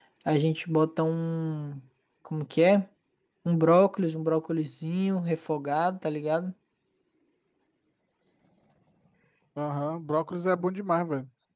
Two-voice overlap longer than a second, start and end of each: none

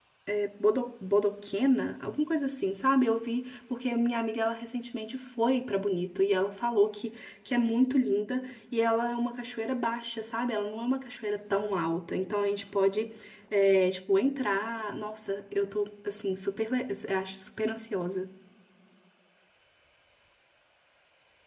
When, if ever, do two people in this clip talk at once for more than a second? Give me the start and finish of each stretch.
none

